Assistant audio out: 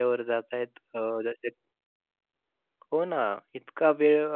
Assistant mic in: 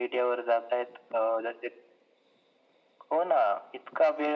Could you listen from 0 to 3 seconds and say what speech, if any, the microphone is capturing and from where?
echo only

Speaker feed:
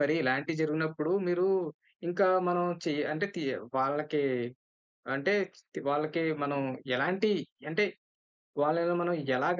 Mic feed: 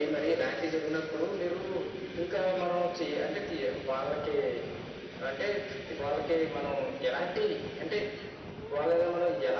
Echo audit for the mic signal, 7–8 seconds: echo only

